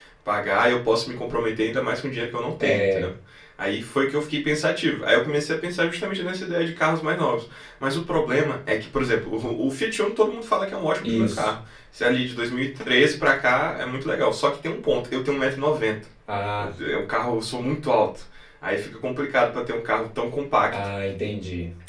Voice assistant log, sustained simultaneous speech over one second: none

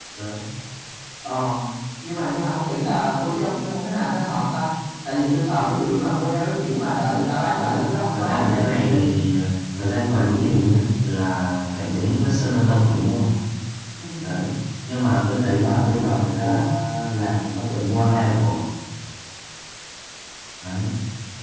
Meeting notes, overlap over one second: present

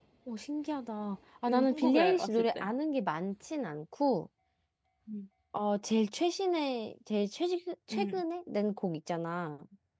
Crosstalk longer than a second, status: present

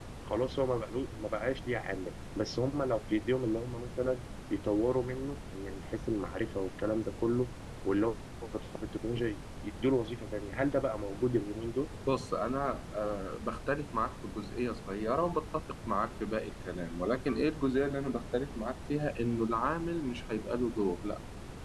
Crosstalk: none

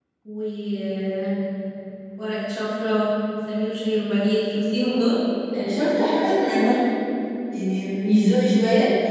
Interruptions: none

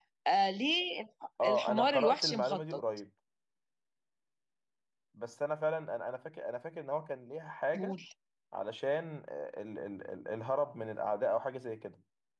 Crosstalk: present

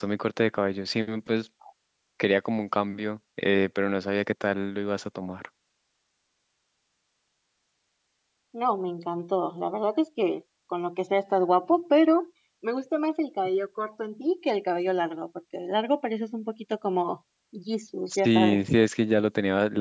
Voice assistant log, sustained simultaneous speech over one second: none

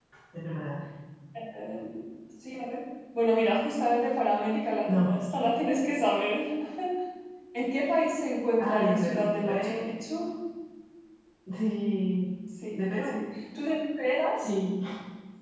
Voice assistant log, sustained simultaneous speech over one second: present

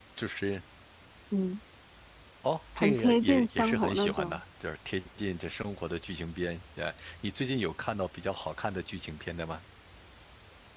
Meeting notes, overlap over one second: present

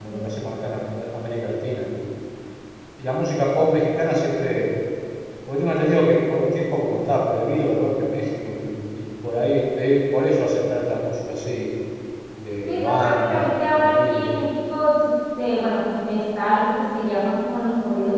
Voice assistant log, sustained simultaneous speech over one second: present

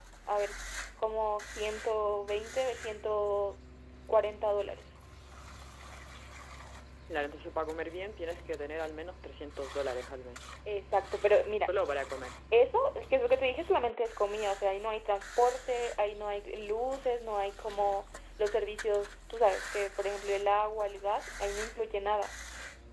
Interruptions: none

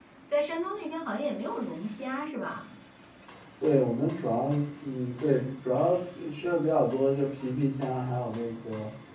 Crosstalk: none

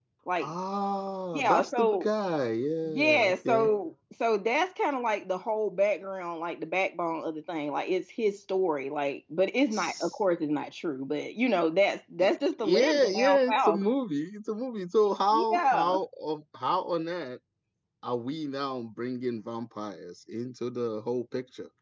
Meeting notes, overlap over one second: present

